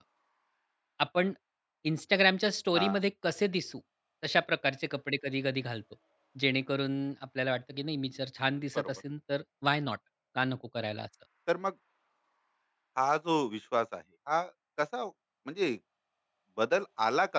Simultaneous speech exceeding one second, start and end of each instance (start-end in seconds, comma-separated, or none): none